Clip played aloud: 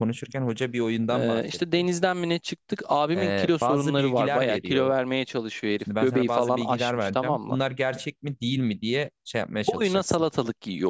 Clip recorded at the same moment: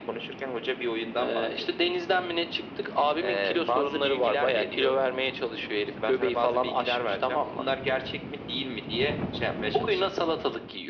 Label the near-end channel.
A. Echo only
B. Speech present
A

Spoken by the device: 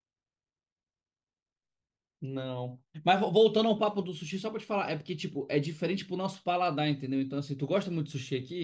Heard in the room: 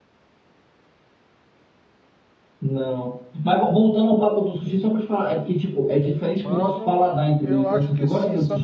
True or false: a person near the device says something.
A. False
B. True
B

